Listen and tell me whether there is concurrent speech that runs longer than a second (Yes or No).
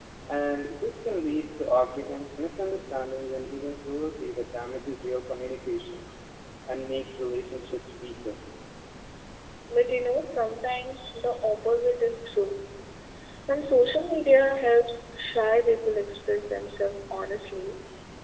No